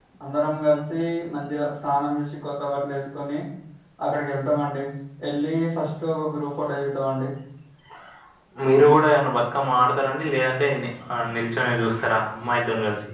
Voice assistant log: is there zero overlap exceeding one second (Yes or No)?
Yes